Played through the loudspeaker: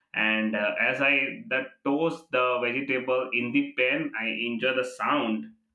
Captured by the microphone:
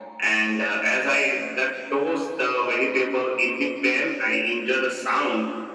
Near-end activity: none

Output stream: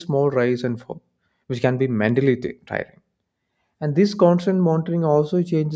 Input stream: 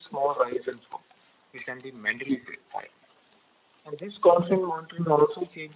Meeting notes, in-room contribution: none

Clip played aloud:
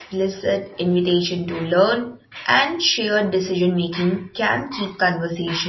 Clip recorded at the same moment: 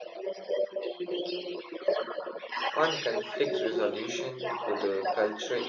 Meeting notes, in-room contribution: present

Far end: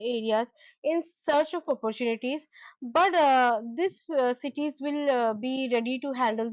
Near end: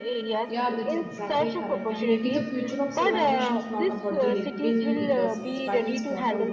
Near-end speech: present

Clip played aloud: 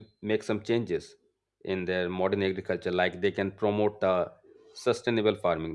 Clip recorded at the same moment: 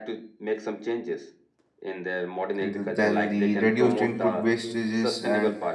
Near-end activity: present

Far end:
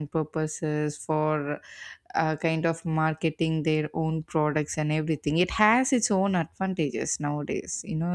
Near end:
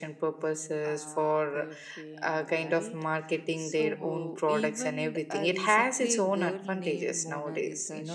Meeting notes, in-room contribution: present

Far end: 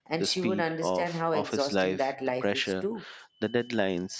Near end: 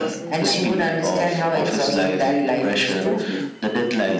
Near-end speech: present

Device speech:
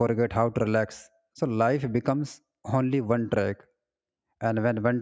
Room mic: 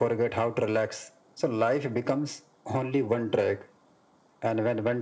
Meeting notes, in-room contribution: none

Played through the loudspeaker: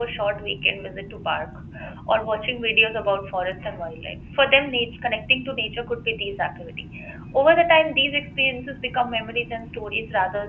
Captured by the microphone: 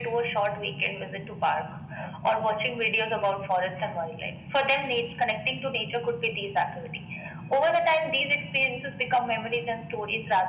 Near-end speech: none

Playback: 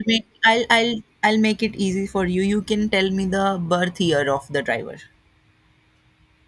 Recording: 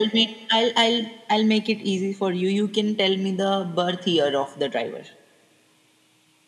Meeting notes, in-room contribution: none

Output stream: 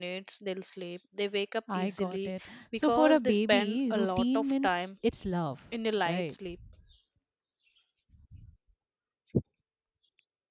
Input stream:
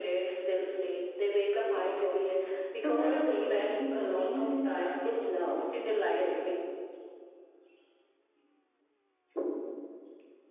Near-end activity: none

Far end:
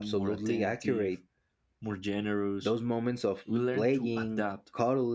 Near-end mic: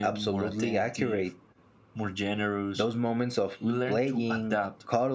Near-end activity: none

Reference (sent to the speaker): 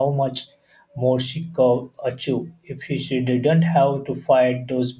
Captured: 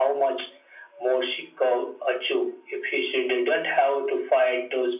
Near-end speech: none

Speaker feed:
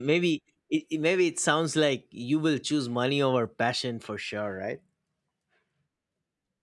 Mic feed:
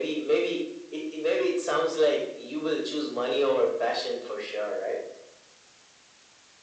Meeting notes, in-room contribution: none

